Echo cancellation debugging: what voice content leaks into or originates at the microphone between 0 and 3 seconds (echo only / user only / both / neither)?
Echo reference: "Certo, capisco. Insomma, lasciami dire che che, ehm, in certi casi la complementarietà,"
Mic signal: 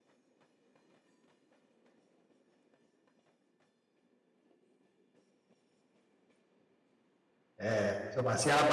neither